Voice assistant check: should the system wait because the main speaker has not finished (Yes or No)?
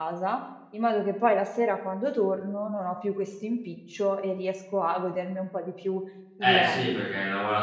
No